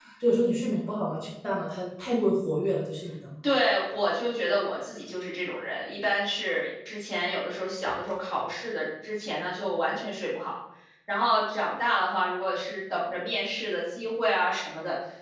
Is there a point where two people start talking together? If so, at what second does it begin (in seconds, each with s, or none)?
none